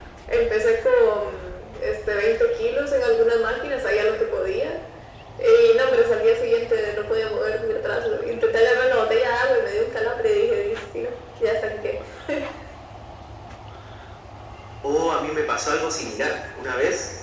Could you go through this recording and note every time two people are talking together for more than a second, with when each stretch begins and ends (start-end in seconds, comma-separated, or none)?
none